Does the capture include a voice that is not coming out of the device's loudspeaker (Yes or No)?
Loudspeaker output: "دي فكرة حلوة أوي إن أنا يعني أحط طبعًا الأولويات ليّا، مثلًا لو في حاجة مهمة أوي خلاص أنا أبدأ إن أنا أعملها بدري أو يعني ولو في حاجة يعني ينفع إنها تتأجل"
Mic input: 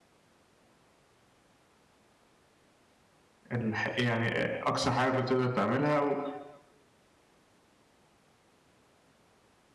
Yes